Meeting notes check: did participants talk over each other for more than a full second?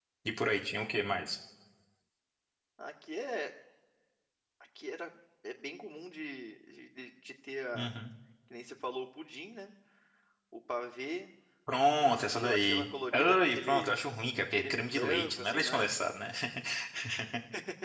Yes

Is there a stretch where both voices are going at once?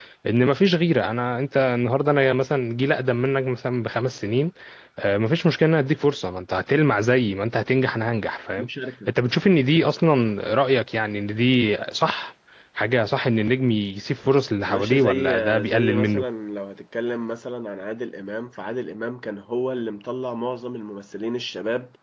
Yes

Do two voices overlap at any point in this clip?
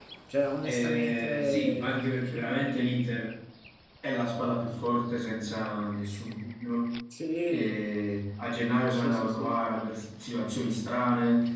Yes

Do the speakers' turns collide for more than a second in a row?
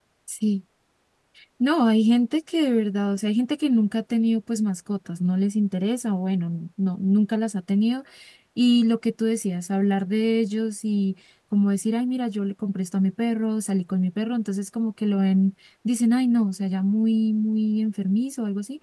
No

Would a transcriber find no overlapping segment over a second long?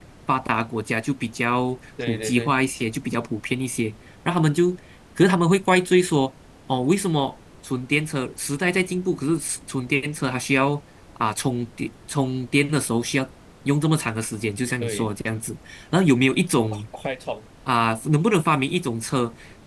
Yes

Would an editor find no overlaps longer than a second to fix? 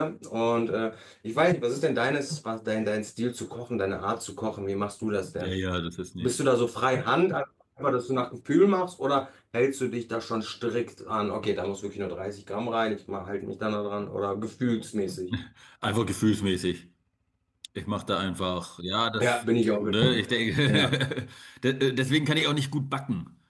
Yes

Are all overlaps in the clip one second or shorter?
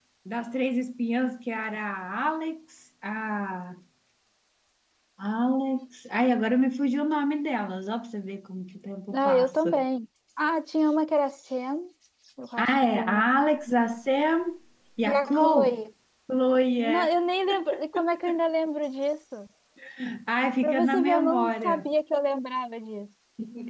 No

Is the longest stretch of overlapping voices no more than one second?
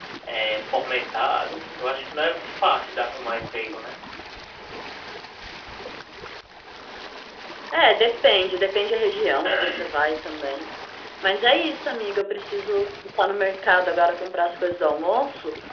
Yes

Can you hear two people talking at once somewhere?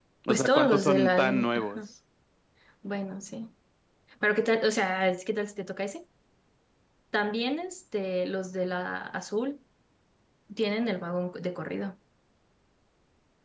Yes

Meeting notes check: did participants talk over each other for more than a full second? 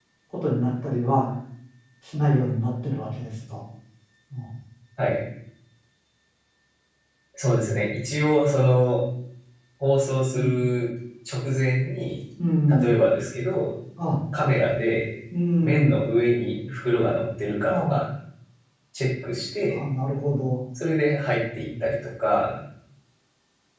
No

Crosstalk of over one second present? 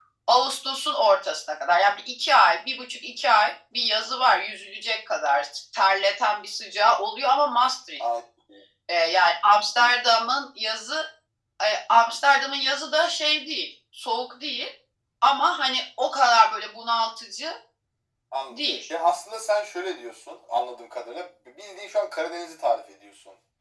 No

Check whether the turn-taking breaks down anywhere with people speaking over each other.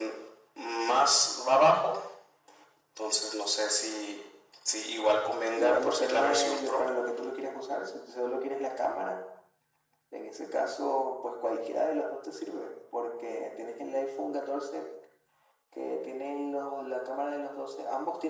Yes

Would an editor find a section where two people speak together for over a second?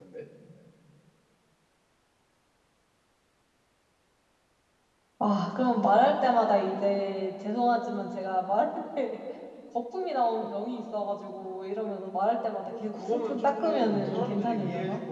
Yes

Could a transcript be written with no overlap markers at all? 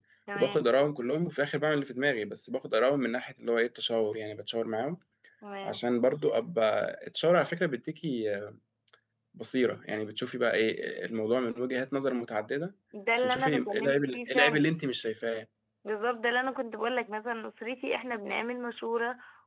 No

